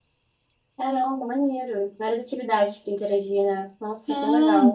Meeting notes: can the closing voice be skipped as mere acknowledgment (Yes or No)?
No